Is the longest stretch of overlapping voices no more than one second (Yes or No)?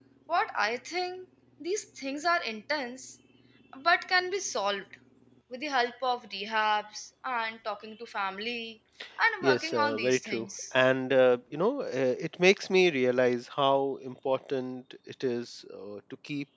No